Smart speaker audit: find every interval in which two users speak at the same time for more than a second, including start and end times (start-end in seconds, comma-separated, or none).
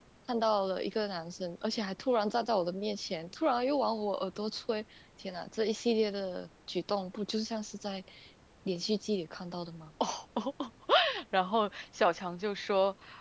none